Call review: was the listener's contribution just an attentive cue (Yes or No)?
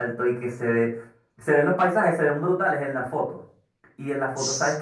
Yes